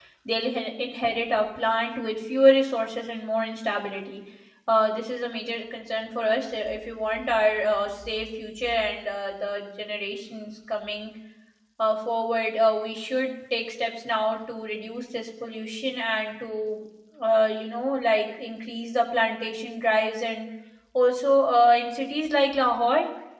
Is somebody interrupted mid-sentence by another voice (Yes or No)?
No